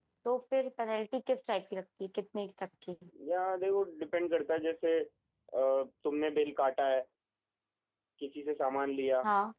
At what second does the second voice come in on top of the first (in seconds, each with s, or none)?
none